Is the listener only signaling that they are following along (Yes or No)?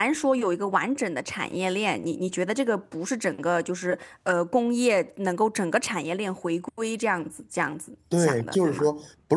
No